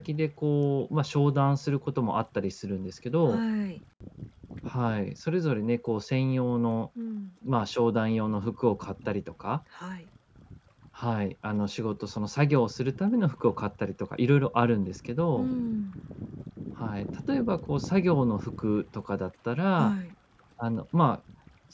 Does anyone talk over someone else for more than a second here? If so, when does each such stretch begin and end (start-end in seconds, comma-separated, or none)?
none